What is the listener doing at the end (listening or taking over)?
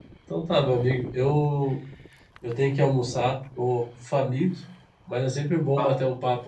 listening